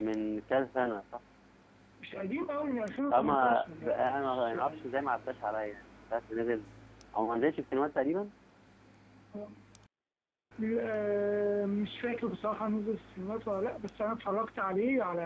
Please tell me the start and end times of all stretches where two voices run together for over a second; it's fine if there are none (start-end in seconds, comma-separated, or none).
3.1-4.6